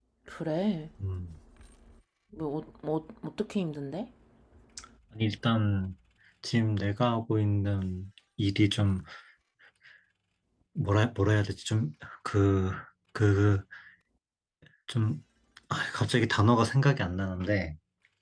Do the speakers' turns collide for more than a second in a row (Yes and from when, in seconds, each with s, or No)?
No